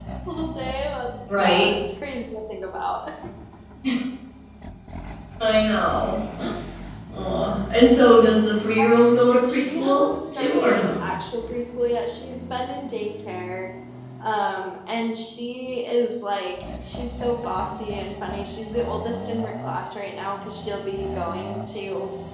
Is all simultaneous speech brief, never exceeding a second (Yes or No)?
No